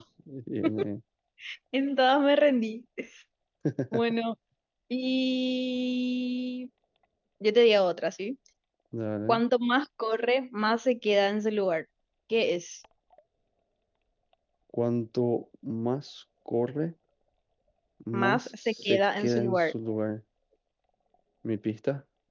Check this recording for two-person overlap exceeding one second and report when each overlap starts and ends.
18.1-19.7

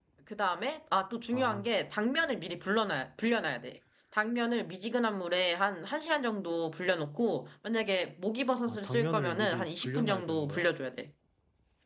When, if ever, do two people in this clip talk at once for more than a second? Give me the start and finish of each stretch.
8.7-10.7

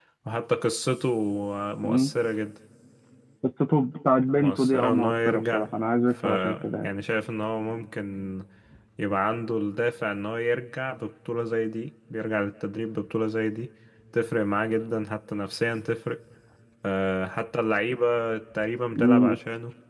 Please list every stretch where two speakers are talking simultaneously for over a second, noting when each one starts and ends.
4.4-5.7

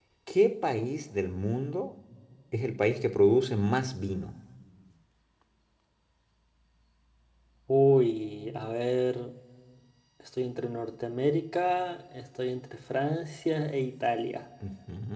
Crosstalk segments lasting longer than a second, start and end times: none

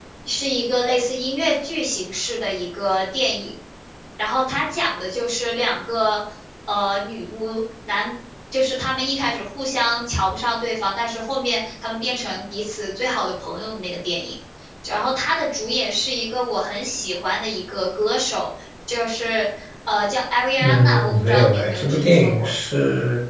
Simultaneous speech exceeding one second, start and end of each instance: 20.6-22.5

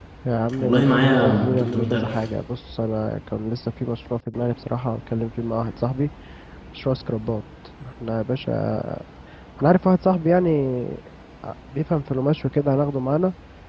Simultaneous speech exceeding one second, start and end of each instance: 0.6-2.1

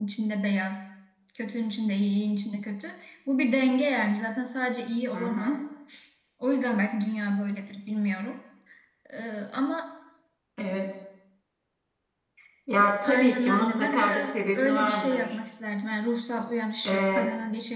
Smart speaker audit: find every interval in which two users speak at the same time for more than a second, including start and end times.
13.0-15.2

